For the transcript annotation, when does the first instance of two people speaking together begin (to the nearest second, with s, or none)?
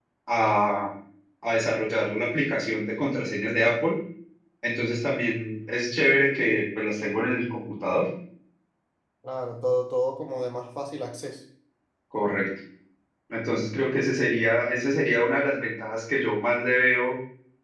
none